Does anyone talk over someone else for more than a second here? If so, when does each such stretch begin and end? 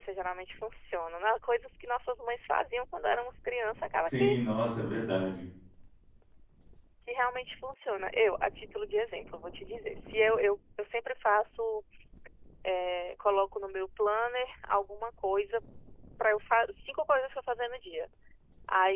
none

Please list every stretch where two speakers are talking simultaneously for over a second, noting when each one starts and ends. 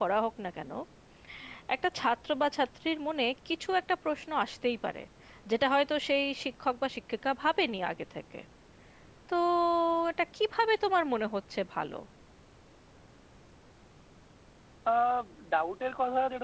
none

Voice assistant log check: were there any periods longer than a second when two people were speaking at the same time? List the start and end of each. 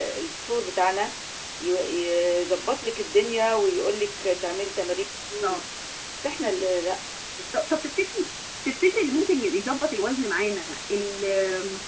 none

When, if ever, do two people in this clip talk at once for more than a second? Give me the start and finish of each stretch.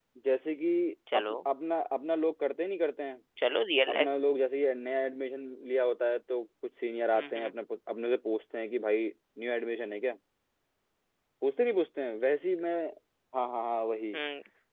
none

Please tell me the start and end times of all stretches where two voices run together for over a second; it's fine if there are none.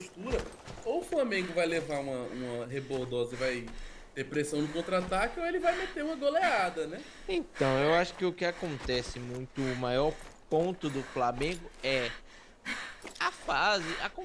none

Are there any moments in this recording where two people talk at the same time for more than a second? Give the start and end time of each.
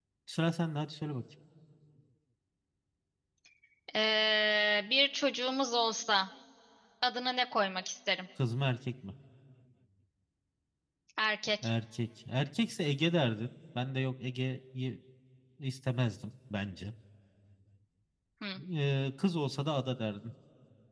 none

